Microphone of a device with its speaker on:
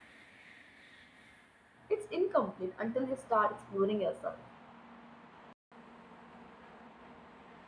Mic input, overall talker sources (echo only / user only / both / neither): user only